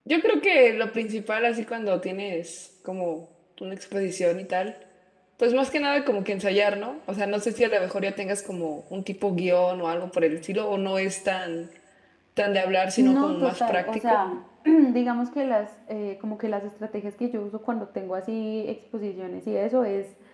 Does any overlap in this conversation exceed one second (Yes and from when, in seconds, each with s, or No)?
Yes, from 13.0 s